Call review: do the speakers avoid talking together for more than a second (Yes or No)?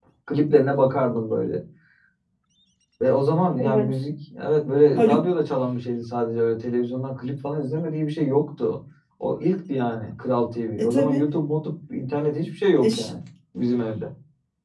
Yes